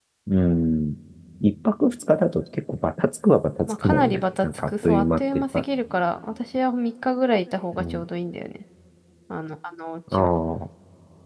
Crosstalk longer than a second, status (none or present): present